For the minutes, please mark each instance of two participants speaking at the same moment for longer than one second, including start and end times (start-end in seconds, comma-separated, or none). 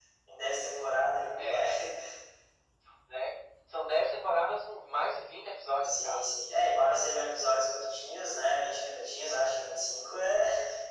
none